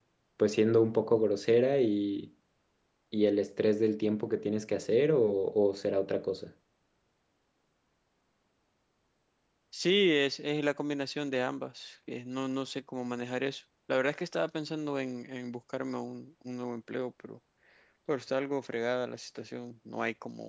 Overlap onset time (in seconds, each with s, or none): none